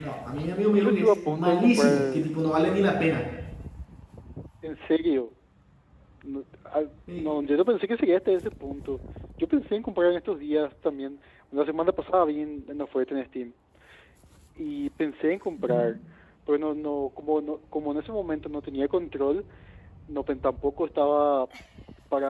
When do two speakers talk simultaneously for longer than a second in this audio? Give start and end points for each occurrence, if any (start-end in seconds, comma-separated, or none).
0.7-2.3